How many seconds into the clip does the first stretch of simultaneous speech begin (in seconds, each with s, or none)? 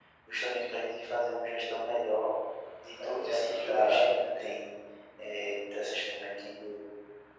3.0 s